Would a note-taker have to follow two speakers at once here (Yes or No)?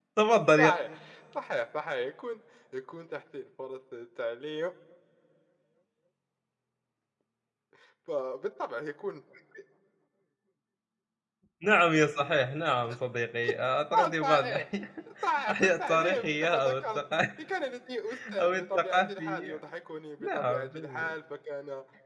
Yes